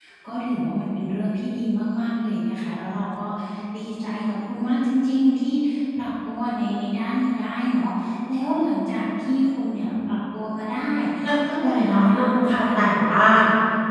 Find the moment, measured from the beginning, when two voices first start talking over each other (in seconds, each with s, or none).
11.6 s